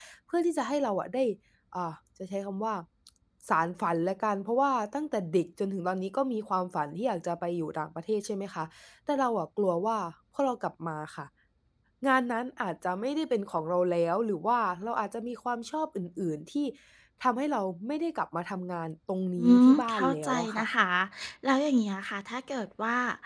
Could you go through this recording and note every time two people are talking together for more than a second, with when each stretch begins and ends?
19.4-20.7

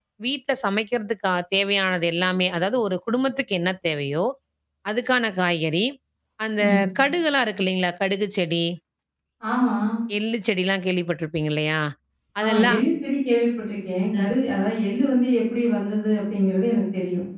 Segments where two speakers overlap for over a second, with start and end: none

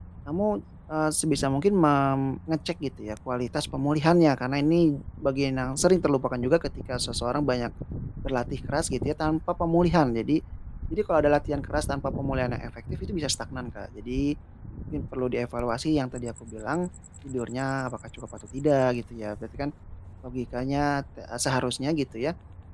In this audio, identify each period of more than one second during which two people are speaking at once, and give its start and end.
none

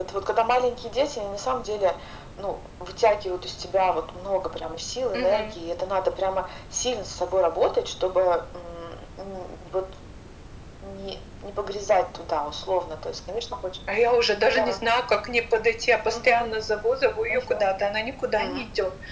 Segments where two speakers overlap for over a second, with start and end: none

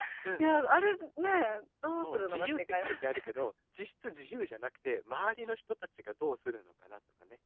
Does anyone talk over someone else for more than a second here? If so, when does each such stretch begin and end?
2.0-3.2

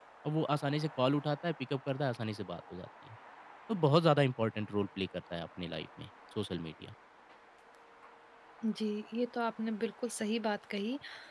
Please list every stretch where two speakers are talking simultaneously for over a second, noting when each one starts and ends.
none

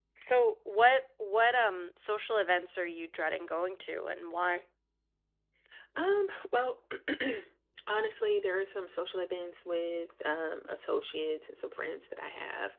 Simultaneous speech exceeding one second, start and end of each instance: none

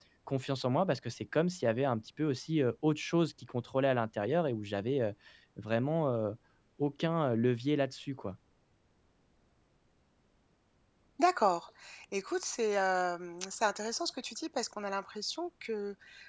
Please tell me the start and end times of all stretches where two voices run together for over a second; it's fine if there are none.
none

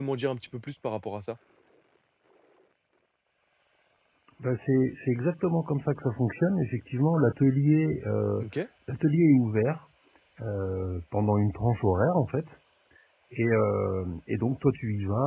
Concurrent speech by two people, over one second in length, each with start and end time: none

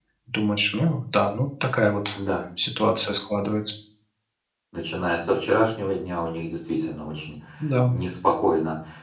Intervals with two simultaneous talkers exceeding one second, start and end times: none

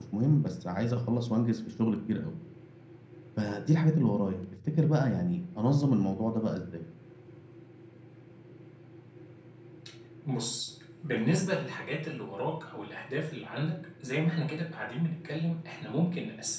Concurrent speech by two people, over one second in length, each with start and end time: none

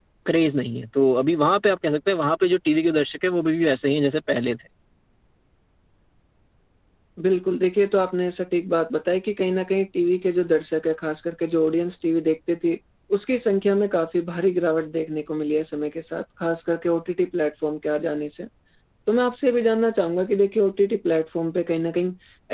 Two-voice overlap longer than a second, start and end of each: none

